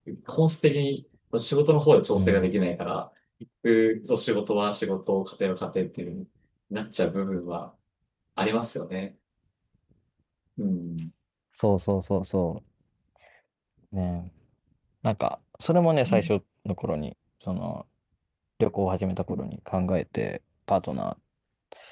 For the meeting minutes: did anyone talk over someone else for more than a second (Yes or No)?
No